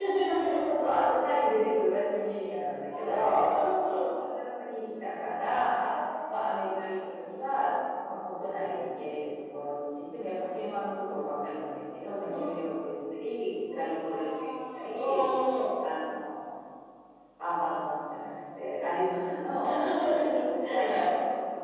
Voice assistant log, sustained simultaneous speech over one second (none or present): present